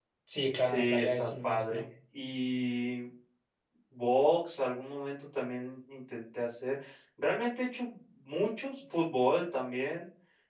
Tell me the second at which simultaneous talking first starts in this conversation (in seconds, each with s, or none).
0.6 s